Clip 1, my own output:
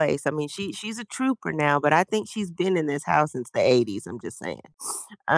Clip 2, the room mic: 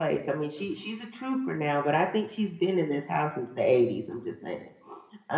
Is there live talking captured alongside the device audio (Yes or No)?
No